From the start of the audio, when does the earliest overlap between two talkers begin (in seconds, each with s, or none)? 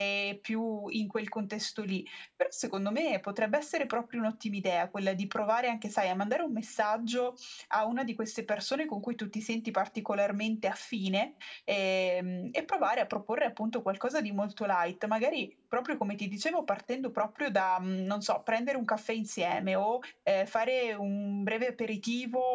none